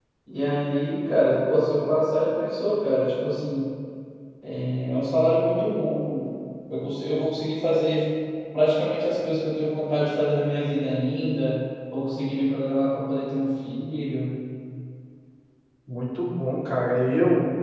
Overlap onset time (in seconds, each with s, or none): none